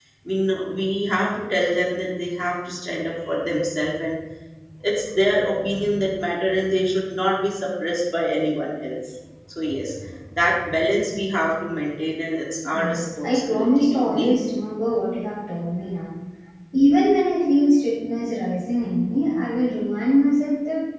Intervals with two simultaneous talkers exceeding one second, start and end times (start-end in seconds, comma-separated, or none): 12.7-14.3